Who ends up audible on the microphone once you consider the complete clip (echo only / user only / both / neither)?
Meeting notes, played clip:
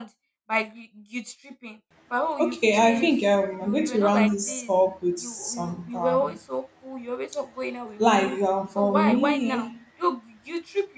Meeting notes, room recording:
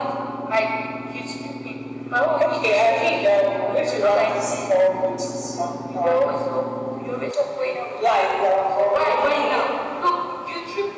echo only